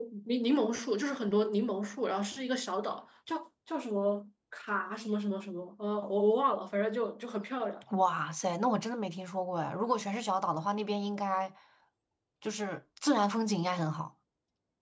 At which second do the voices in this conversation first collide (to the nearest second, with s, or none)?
none